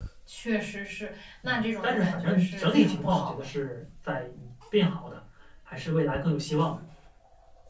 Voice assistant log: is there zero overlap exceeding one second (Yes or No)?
No